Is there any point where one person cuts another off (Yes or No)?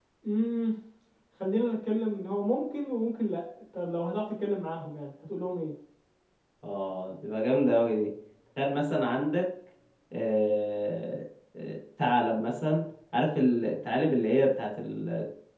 No